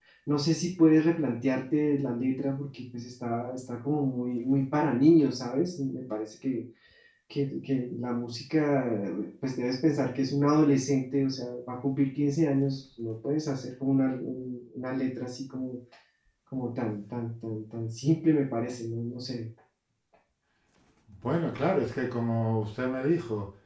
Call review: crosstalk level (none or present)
none